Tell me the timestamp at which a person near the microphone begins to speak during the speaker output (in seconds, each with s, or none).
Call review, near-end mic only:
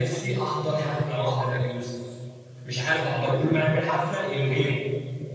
none